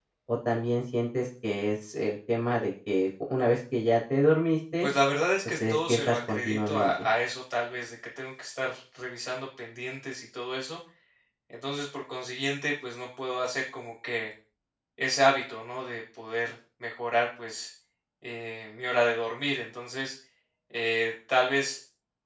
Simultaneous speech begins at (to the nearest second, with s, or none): 6 s